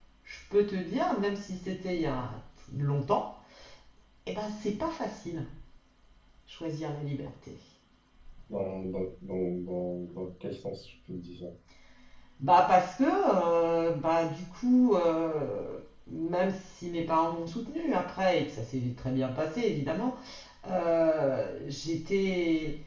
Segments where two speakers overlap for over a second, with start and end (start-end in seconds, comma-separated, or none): none